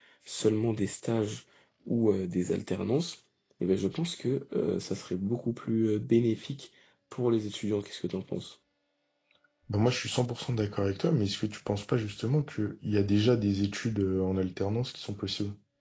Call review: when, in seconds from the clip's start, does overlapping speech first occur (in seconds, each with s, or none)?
none